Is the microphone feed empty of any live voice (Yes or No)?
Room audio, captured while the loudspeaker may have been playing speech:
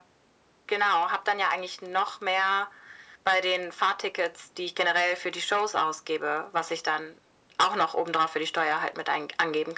Yes